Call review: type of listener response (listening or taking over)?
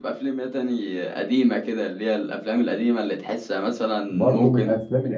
taking over